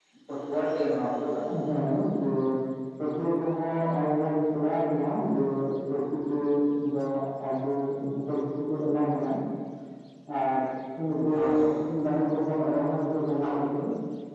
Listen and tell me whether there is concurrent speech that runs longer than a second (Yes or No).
No